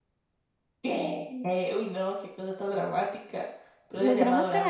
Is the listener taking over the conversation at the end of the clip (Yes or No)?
Yes